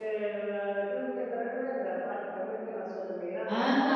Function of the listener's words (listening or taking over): taking over